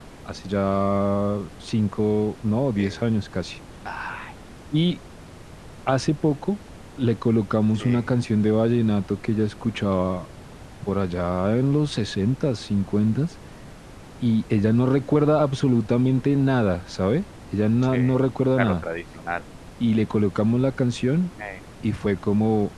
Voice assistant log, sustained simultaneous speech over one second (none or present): none